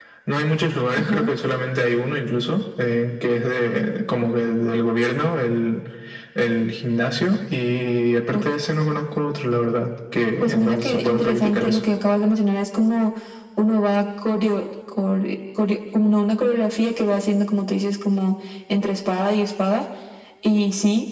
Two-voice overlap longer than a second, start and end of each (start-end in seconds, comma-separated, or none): 10.4-11.8